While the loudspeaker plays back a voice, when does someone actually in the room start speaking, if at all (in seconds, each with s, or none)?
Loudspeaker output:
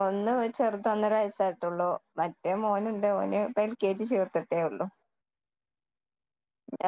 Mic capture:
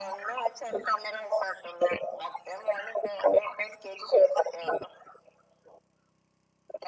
none